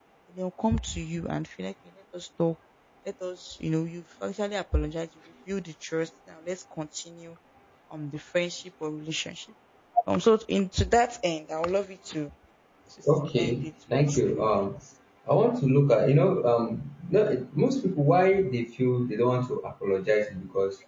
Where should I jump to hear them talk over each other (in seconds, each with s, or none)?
13.4 s